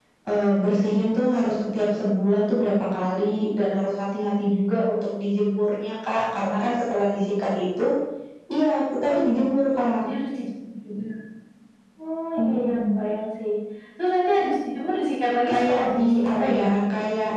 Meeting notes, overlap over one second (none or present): present